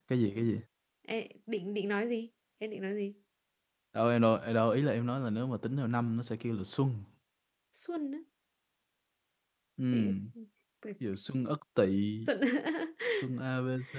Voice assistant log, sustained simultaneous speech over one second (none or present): none